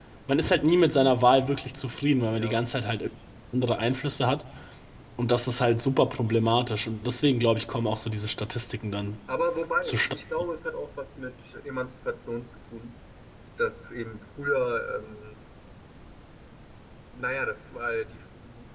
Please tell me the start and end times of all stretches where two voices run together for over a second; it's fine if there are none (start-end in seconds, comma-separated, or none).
none